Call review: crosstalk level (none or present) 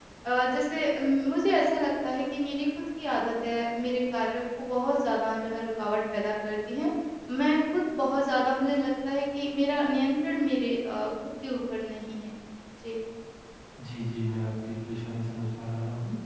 none